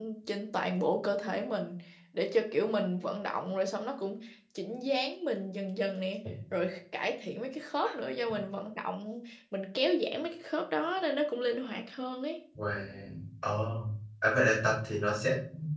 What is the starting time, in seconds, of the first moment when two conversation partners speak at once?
none

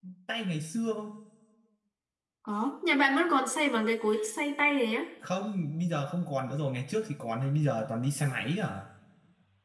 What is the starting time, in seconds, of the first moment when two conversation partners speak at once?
none

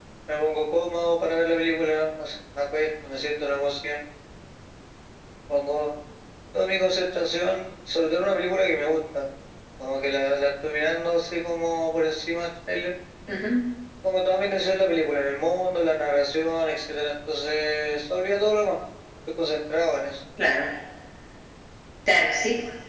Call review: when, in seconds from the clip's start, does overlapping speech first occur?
none

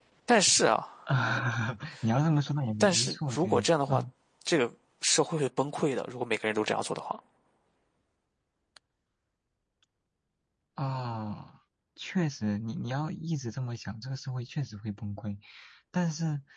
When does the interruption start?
2.8 s

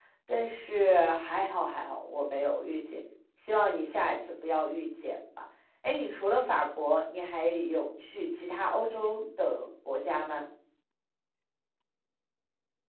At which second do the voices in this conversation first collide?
none

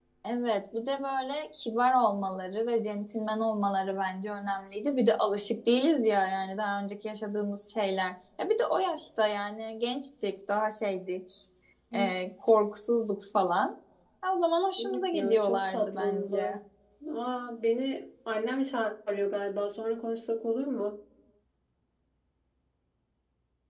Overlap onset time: 14.8 s

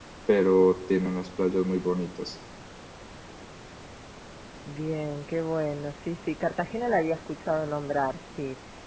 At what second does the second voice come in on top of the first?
none

